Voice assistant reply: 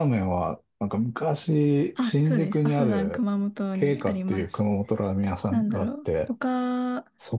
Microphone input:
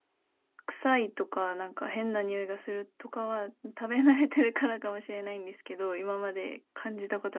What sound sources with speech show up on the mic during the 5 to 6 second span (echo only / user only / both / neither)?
user only